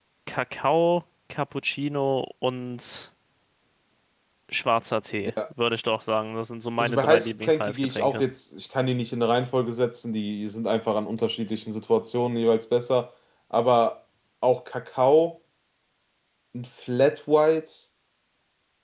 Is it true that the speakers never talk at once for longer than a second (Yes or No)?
No